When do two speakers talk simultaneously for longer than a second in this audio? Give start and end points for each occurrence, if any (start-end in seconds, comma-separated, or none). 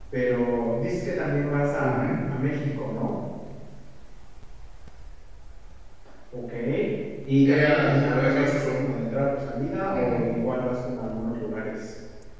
7.5-8.8